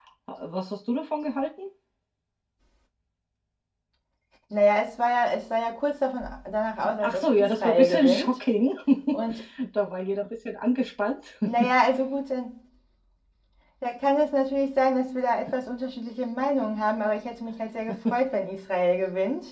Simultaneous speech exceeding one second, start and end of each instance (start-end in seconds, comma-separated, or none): 7.0-8.4